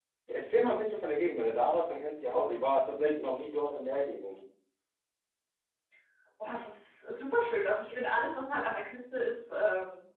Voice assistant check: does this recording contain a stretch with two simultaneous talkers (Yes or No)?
No